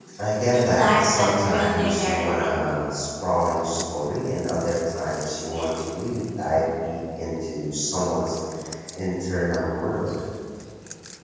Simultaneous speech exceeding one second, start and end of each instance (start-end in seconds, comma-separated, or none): 0.7-2.5